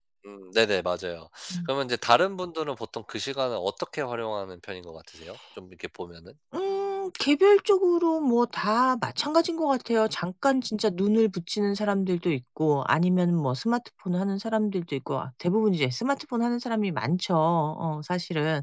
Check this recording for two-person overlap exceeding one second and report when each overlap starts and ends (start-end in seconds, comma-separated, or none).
none